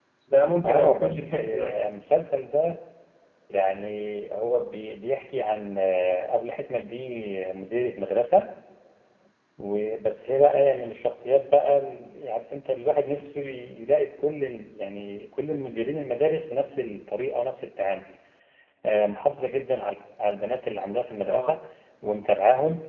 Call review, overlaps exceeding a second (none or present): present